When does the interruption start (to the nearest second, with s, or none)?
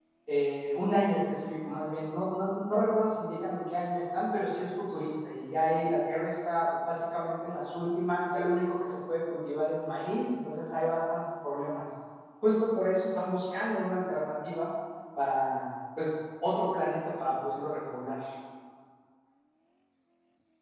none